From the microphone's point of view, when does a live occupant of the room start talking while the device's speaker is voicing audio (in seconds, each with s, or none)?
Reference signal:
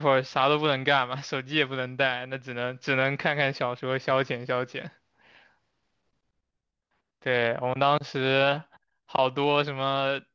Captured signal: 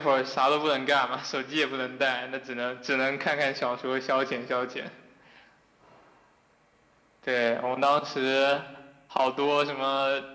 none